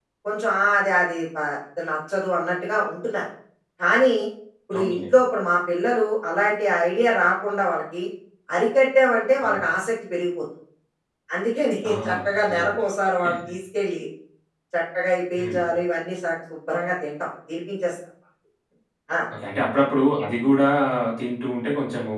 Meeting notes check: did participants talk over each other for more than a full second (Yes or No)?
No